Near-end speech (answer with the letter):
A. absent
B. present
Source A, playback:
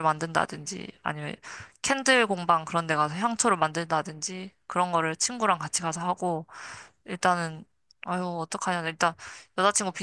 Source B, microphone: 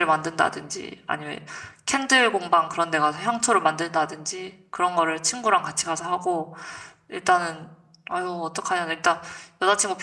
A